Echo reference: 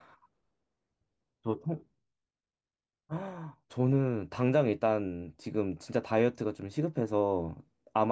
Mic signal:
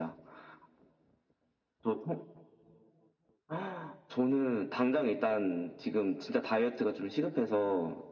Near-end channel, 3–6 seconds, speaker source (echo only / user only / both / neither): echo only